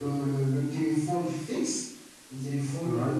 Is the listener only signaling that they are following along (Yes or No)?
Yes